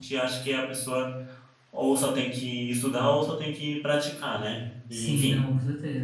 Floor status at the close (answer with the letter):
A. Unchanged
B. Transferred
B